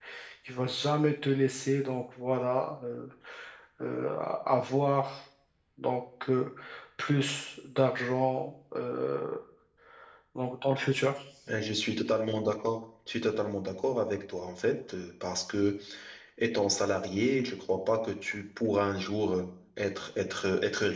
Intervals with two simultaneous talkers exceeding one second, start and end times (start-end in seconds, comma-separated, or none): none